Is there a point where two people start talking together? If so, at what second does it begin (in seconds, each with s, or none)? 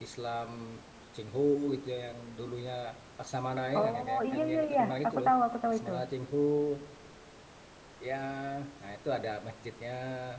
3.8 s